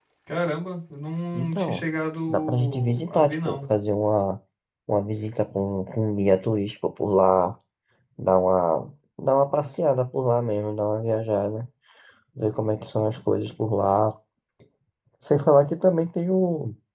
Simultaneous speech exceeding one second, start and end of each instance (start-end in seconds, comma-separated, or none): 2.3-3.6